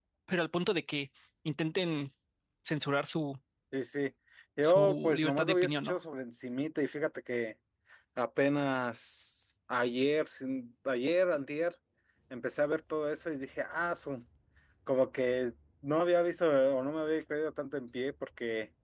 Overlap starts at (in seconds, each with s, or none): 4.6 s